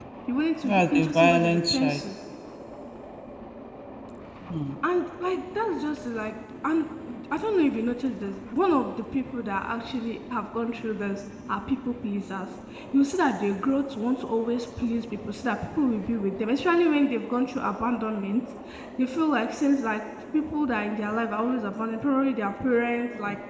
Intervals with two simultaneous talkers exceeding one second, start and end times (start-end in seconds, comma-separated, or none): 0.6-2.0